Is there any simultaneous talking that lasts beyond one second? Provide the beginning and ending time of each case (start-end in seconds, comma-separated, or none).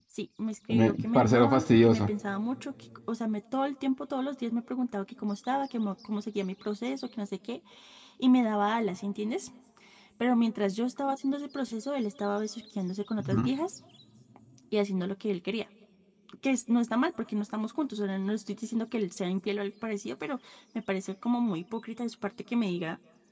0.7-2.1